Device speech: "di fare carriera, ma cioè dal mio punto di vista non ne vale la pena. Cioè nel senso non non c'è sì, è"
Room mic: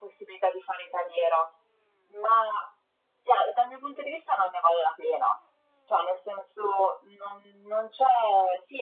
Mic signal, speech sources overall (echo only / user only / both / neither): echo only